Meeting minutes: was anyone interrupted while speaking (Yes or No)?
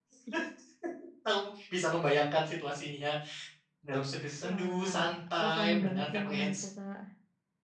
Yes